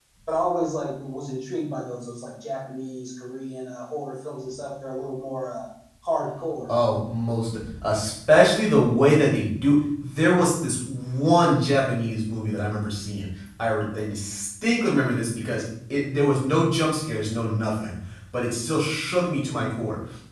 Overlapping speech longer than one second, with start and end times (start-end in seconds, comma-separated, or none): none